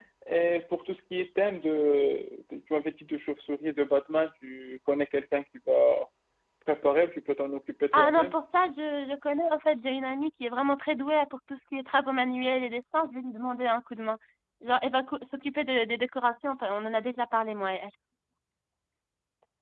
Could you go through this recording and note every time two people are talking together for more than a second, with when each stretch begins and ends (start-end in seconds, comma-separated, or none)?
none